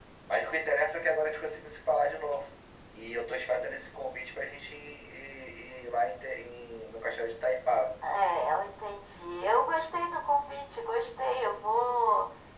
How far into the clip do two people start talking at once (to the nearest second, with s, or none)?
none